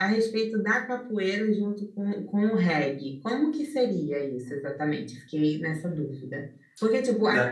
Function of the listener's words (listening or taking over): listening